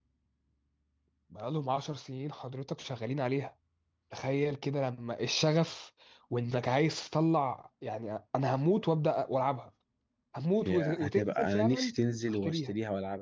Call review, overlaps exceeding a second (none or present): present